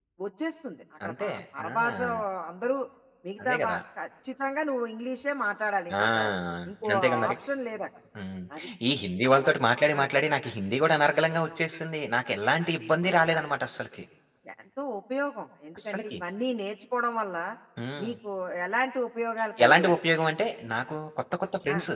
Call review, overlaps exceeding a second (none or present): none